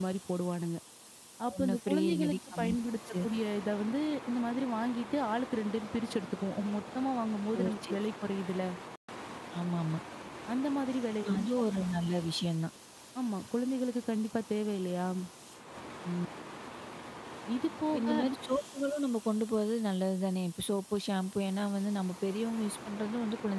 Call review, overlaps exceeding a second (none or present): present